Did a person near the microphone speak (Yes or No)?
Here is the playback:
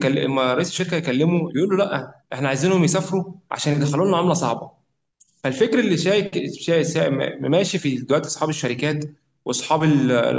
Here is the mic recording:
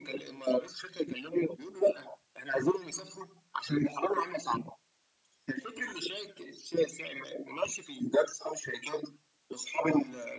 No